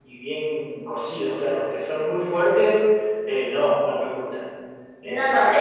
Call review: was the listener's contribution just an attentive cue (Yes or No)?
No